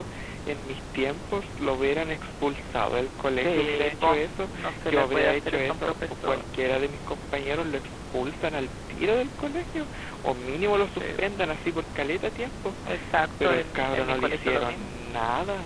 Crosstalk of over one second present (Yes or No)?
Yes